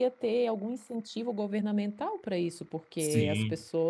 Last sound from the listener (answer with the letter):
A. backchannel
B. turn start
A